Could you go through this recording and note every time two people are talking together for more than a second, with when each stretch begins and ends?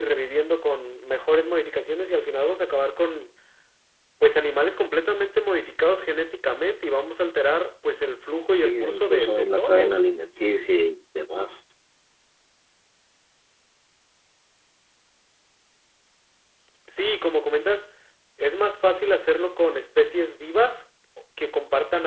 8.6-10.0

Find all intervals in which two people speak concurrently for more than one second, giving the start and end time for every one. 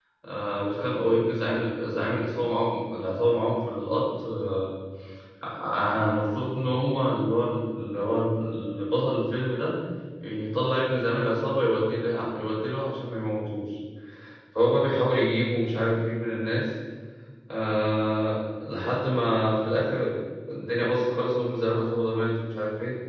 none

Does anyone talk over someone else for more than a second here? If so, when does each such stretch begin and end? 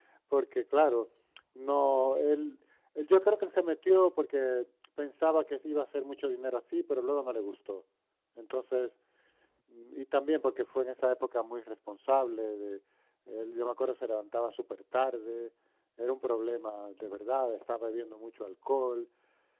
none

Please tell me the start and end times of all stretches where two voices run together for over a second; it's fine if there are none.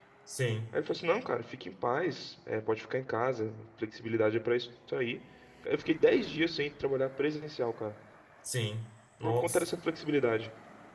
none

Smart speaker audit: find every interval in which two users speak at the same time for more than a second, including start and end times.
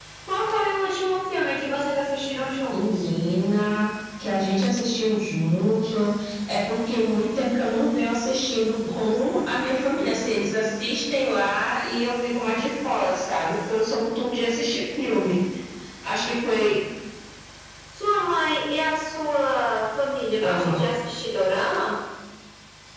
none

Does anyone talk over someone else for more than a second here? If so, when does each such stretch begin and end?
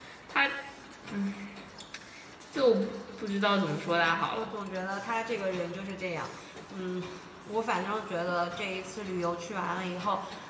none

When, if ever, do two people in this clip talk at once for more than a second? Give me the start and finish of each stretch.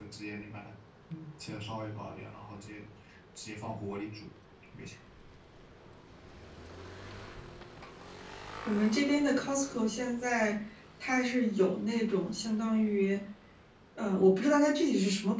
none

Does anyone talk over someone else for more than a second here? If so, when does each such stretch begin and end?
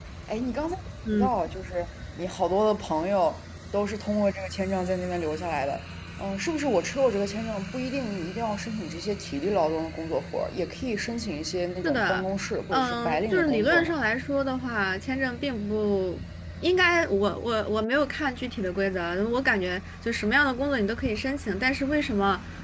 12.7-13.9

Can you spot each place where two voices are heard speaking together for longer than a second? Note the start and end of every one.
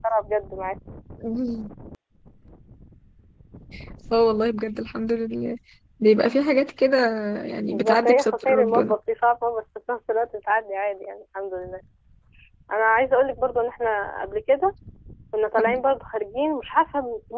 7.7-8.9

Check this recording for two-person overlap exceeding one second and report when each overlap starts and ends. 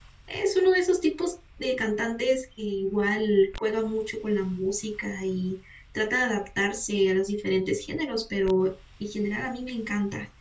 none

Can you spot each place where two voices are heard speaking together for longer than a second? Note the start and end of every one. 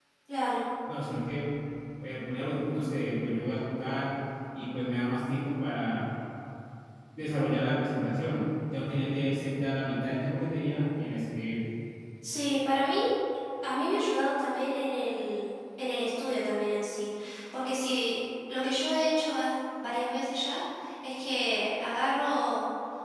none

